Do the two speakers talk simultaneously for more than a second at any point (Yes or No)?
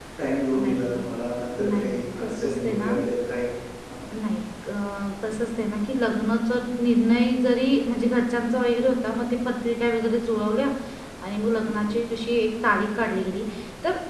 Yes